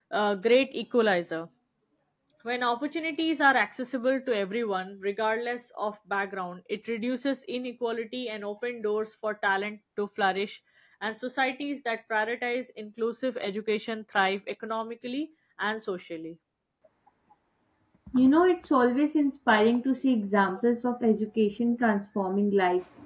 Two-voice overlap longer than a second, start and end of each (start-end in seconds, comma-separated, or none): none